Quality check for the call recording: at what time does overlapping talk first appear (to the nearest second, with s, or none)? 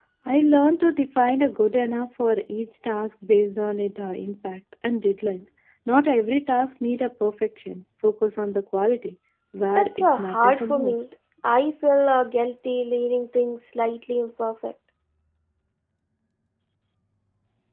10 s